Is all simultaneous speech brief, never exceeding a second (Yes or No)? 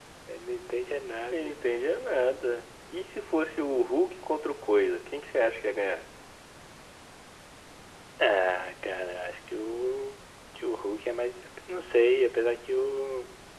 Yes